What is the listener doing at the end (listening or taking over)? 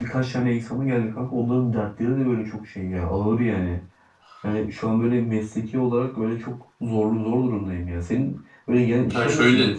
listening